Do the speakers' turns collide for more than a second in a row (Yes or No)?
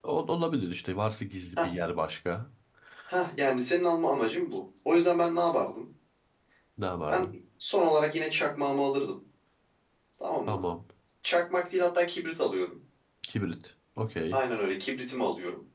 No